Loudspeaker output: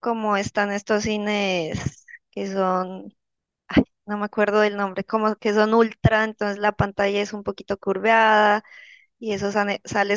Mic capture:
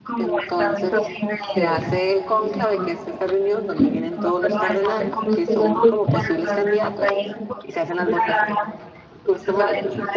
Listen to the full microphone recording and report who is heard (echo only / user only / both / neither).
both